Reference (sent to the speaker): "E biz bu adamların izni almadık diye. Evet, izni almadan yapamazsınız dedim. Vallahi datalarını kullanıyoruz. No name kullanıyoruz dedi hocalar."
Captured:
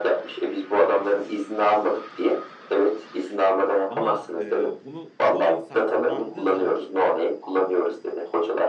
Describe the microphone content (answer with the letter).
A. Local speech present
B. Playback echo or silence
A